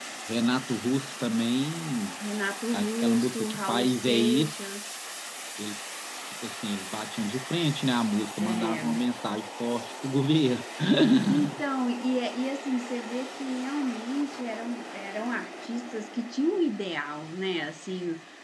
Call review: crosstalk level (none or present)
present